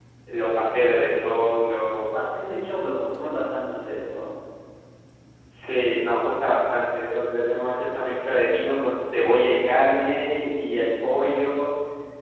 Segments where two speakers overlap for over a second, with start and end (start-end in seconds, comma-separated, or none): 9.8-11.4